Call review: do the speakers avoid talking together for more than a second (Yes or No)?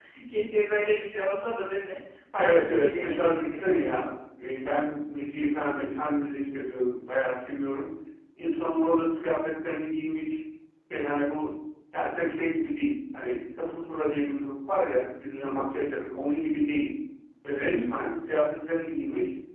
No